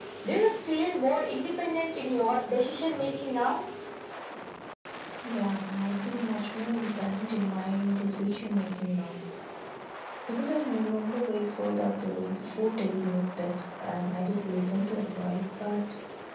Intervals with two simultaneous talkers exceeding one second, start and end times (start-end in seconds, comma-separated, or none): none